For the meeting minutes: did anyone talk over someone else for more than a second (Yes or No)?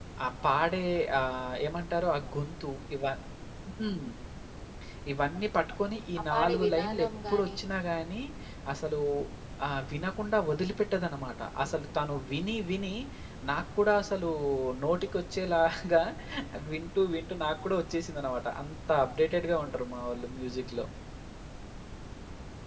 Yes